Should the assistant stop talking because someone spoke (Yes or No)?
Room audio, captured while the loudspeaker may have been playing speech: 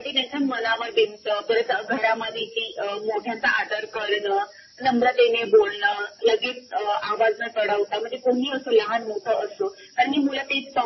No